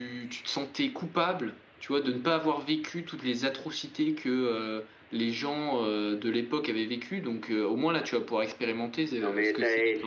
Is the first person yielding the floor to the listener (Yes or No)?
Yes